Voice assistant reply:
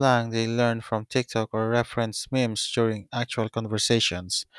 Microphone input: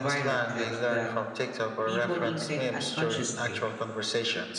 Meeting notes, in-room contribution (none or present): present